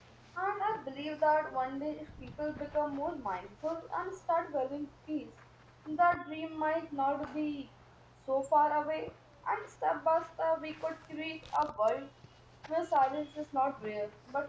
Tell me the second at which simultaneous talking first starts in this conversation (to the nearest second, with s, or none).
none